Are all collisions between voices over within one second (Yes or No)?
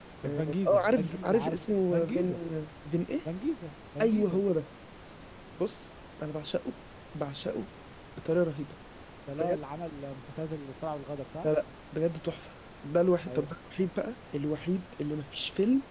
No